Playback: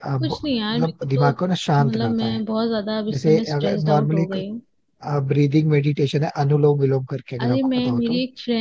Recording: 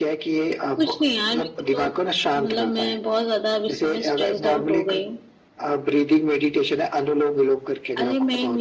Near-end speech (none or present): none